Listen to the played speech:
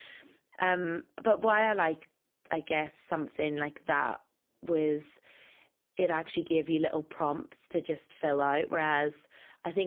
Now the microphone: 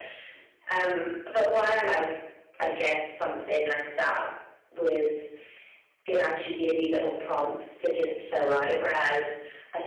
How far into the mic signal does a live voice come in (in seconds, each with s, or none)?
none